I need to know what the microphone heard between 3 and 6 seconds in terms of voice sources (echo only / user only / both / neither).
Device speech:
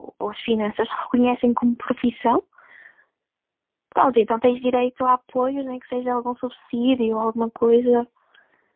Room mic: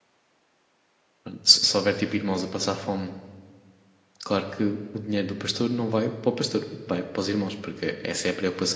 user only